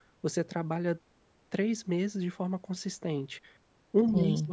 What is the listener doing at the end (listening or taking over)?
listening